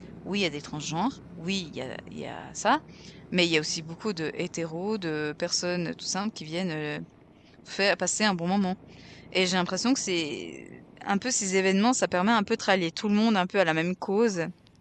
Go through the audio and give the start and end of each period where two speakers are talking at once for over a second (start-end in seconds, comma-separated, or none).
none